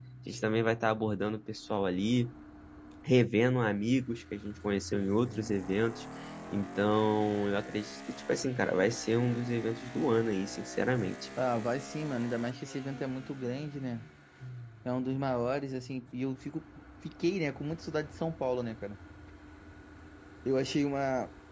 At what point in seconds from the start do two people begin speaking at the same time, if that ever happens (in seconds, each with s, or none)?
none